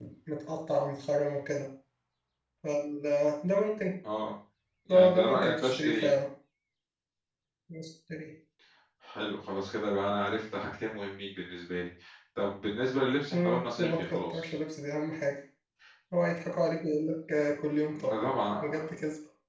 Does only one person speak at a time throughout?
No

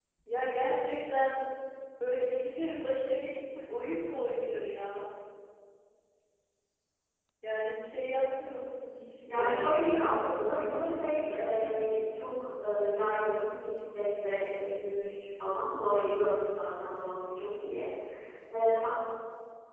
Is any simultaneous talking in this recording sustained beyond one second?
Yes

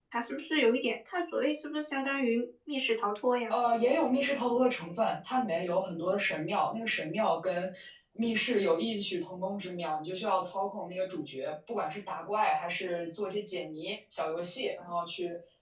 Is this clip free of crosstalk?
Yes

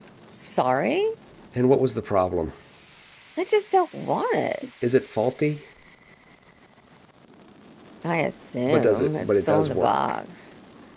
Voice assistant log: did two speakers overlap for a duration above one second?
Yes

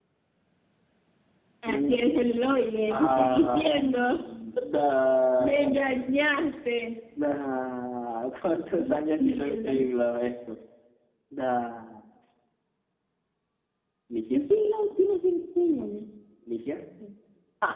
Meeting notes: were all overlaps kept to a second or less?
No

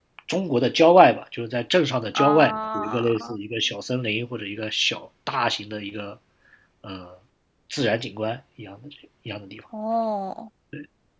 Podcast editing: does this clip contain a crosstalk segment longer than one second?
Yes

